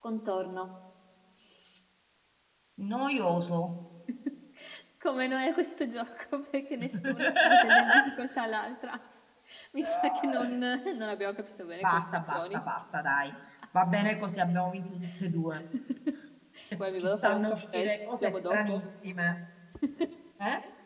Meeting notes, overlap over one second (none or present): present